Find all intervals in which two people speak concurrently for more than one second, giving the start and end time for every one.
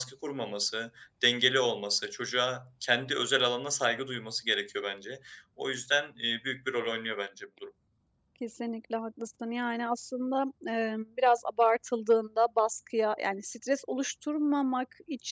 none

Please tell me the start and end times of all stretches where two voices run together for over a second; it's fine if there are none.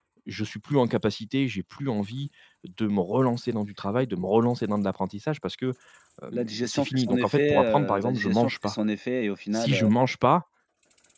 6.3-8.7

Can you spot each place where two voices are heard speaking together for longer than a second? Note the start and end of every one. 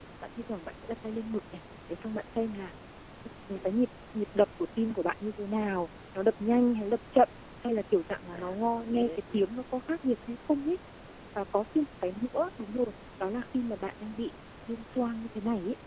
8.3-9.5

